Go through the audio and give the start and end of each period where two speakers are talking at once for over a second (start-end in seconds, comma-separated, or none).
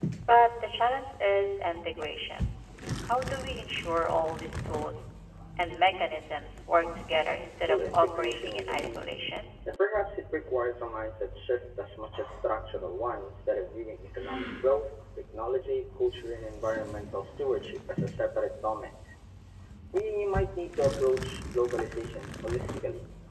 7.7-9.1